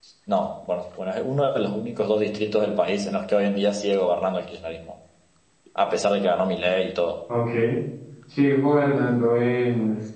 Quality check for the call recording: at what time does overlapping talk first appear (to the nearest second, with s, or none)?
none